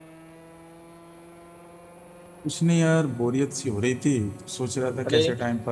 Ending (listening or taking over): listening